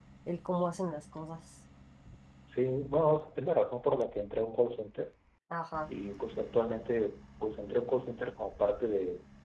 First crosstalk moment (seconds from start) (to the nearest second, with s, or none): none